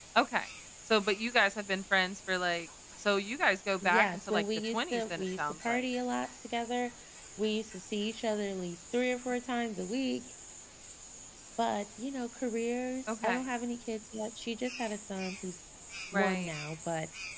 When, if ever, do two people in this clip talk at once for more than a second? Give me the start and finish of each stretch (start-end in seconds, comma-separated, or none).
3.8-5.9